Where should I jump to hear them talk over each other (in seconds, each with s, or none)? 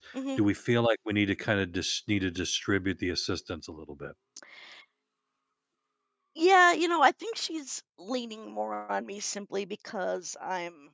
none